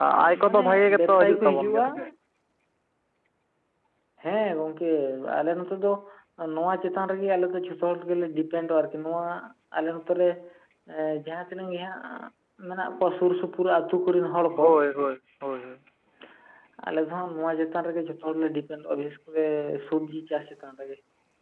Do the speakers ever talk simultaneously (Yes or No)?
Yes